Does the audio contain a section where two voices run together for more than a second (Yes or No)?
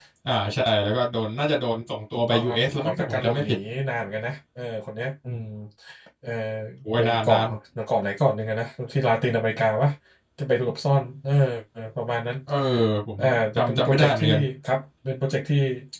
Yes